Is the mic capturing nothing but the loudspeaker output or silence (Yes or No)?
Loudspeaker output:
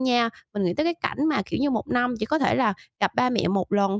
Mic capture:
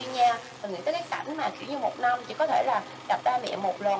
Yes